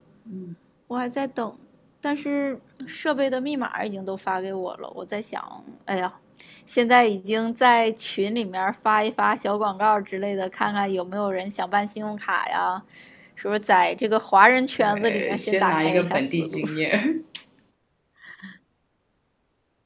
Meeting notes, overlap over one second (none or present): present